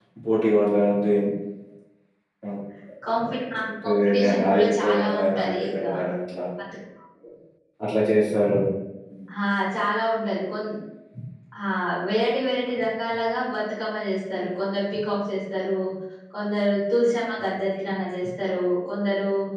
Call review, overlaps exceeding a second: present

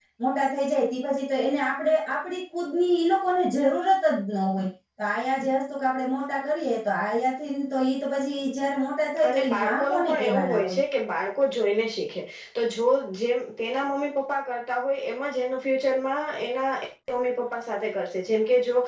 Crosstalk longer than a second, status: present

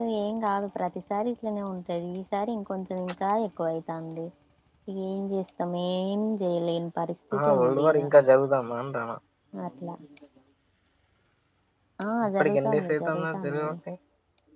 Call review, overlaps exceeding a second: present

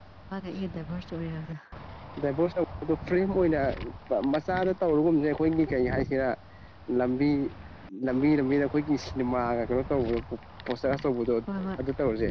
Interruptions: none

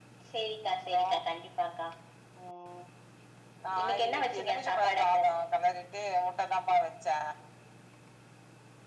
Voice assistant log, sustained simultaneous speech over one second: present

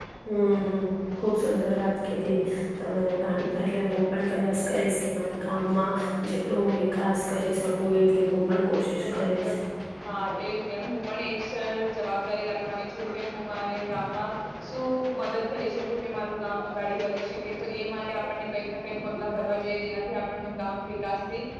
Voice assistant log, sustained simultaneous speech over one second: none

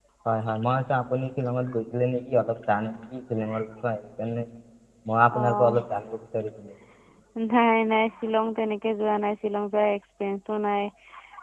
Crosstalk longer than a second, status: none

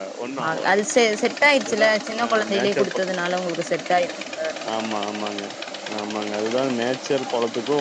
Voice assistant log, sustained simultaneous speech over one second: present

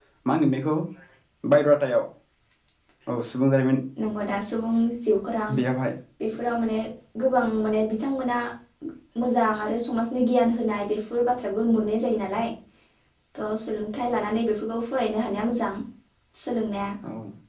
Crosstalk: none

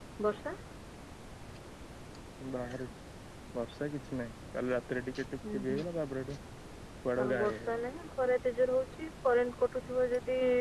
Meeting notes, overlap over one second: none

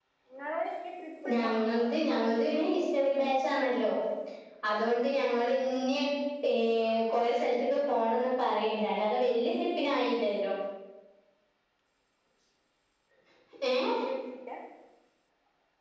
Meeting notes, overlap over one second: present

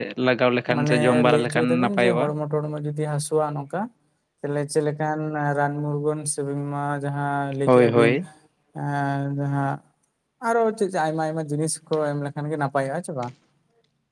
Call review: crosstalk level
present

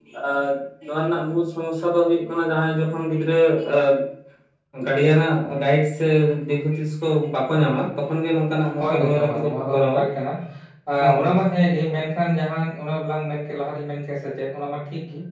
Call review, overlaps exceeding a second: present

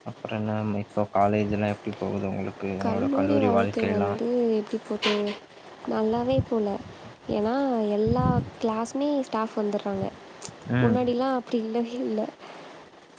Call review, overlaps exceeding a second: present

